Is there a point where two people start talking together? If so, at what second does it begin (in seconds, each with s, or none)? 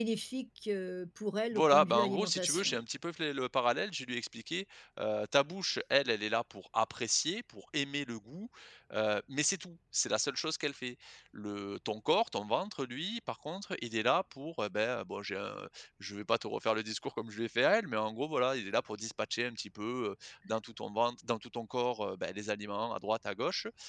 1.5 s